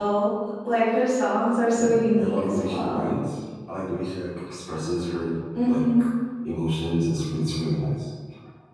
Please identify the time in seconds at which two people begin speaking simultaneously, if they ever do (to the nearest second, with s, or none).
2 s